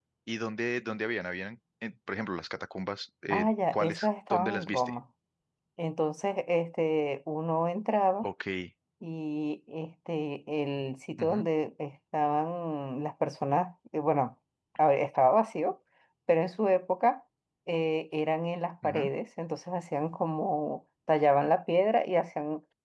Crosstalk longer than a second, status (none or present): present